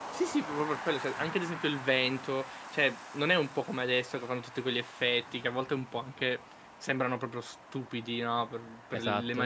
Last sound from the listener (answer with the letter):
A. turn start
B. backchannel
B